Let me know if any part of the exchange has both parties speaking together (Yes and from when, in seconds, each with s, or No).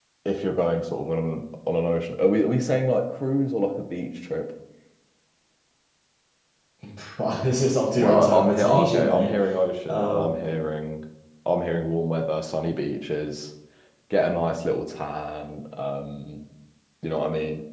Yes, from 8.0 s